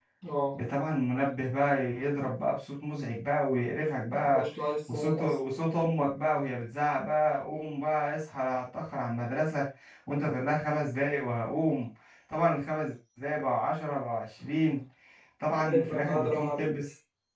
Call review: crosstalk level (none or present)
present